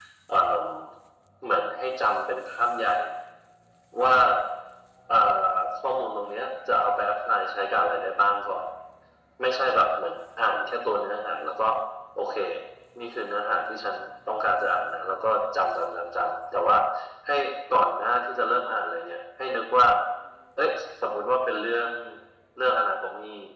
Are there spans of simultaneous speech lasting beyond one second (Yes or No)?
No